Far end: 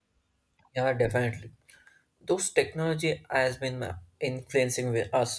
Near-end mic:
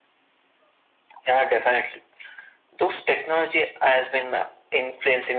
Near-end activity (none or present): none